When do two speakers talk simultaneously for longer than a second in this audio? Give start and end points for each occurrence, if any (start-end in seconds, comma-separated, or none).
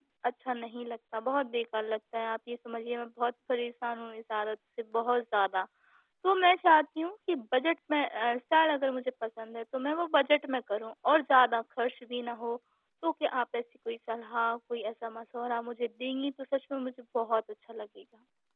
none